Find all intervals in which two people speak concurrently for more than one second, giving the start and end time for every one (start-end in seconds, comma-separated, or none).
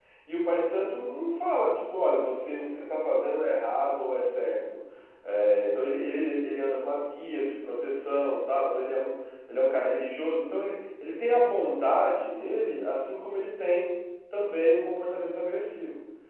none